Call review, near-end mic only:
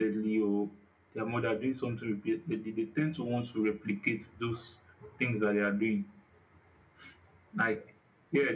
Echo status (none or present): present